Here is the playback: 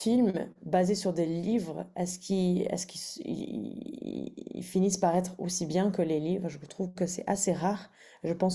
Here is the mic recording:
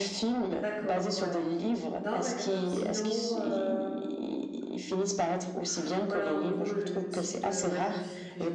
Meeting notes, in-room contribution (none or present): present